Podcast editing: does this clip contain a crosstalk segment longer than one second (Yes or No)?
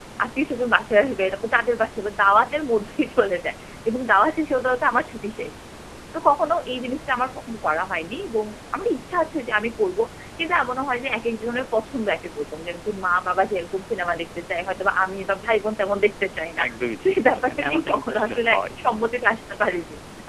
Yes